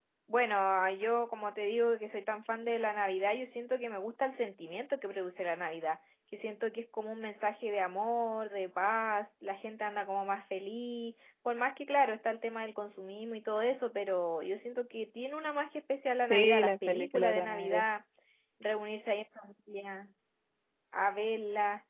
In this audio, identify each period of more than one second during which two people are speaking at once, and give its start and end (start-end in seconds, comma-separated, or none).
16.3-17.8